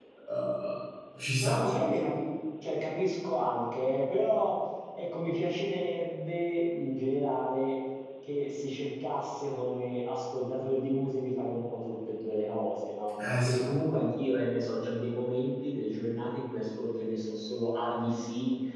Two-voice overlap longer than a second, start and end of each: none

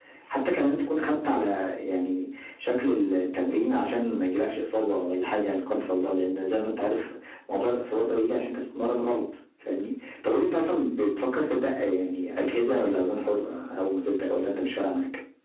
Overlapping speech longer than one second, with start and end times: none

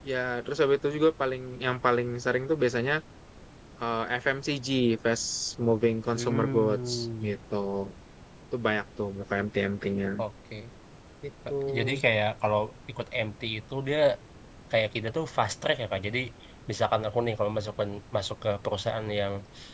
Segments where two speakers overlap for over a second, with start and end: 6.1-7.3

